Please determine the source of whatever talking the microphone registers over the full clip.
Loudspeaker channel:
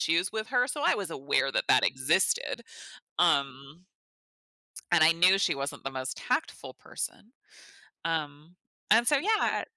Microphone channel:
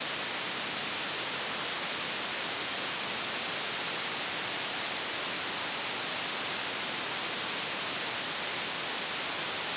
neither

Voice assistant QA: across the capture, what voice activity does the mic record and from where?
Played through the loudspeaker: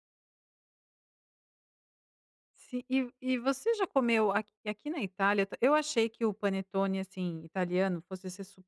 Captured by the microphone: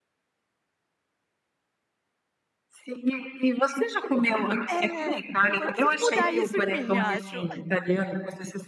both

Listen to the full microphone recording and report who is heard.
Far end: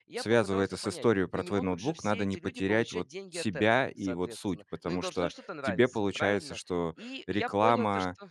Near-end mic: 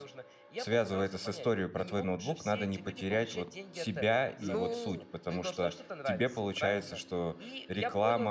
both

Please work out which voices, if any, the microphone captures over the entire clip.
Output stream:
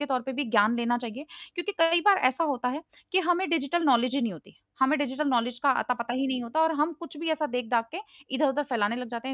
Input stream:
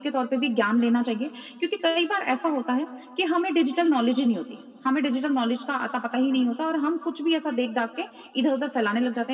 echo only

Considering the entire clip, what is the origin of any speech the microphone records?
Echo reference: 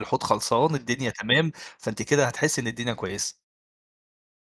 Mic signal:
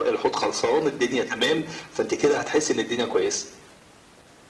echo only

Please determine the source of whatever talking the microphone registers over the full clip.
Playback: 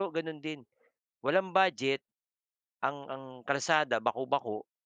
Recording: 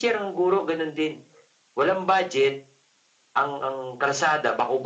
echo only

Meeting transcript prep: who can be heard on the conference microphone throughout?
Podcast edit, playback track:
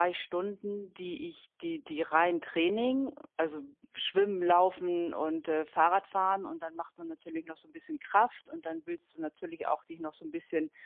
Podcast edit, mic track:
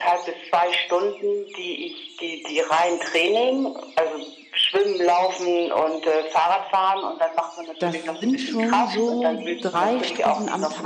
both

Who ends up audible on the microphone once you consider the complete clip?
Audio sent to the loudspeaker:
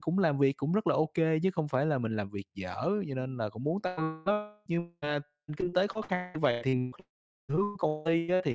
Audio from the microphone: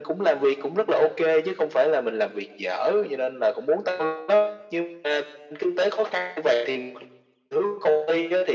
echo only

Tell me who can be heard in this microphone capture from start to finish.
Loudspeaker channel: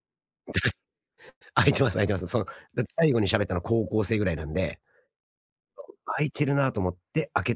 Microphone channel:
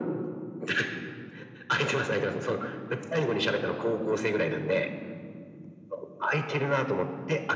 echo only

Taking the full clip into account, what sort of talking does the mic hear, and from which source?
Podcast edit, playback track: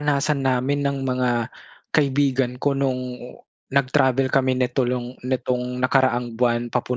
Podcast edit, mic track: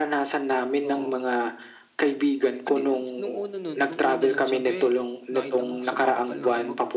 both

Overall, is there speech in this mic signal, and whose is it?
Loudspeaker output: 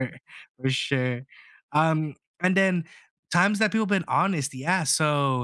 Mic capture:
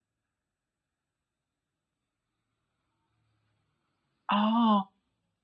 user only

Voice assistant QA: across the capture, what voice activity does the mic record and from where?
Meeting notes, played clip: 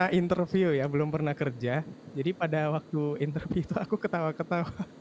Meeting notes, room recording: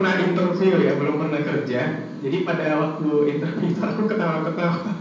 echo only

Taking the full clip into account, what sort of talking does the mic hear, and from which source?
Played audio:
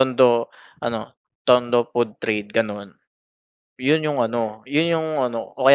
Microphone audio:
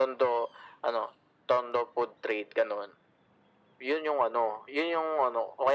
echo only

